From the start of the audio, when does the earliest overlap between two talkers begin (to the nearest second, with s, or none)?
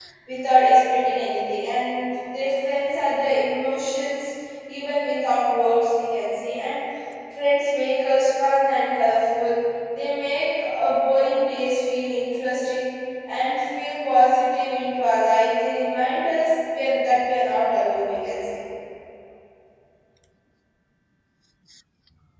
none